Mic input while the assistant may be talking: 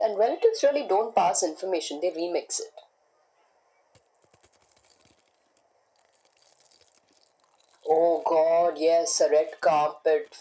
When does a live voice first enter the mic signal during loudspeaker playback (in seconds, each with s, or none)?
none